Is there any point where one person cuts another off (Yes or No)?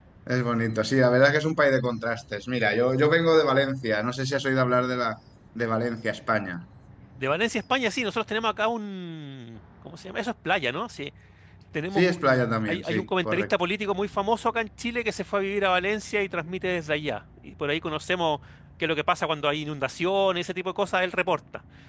Yes